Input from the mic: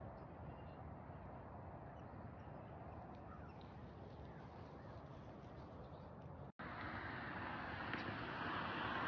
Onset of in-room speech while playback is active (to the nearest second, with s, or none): none